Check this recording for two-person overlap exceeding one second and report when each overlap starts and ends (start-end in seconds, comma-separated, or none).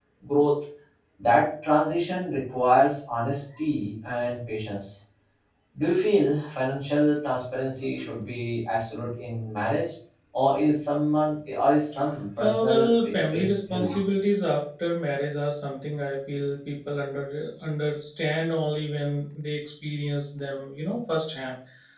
12.4-14.0